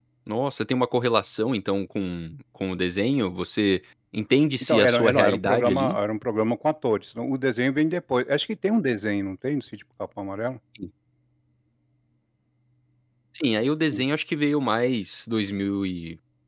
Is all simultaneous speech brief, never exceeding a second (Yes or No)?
No